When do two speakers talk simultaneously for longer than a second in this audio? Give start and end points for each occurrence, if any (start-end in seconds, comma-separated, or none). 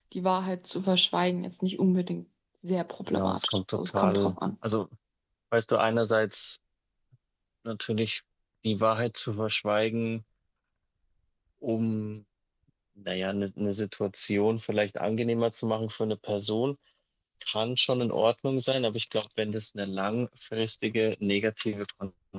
3.1-4.3